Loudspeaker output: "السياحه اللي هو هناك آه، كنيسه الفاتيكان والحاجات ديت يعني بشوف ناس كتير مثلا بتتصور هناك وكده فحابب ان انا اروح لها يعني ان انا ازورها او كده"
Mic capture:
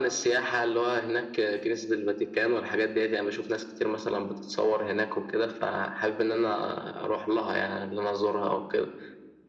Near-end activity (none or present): none